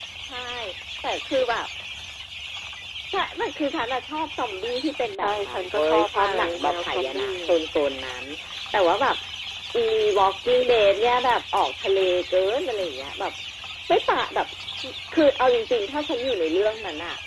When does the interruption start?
5.2 s

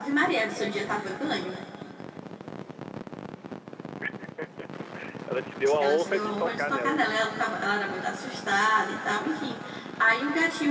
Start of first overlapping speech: 5.8 s

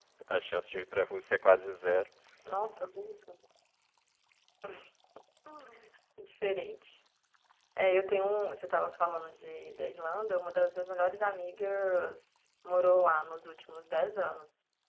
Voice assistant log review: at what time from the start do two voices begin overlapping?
none

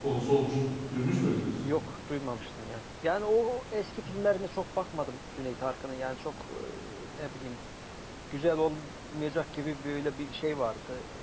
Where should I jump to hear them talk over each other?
none

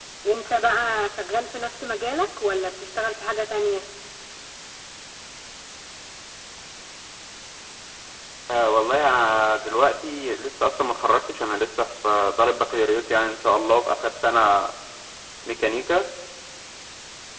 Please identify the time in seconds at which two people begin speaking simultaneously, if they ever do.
none

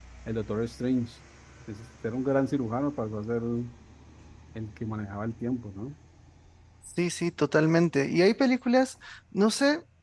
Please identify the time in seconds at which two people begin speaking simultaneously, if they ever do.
none

